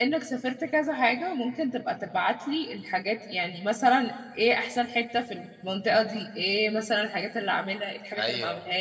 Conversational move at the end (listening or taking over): listening